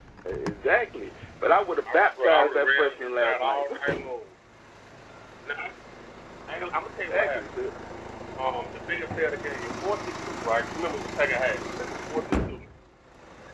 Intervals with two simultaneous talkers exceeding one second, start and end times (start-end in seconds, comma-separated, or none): 1.9-3.8